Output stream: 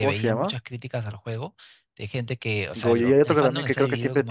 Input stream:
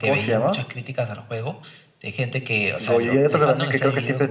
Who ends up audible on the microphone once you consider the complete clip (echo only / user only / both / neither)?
echo only